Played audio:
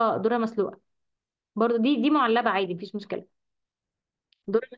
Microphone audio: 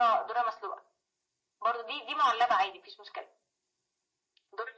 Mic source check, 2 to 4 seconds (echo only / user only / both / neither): echo only